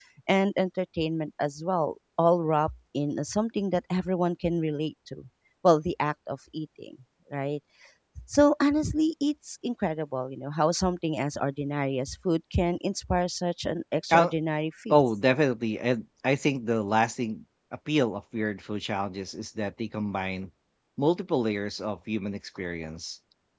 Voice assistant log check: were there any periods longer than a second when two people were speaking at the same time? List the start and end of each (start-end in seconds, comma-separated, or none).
none